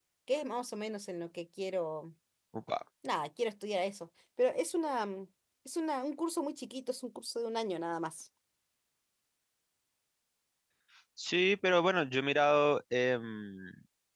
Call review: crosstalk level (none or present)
none